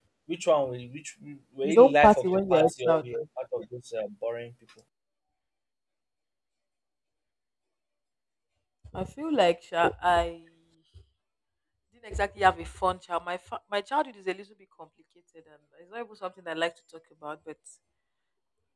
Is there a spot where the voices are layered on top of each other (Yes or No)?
Yes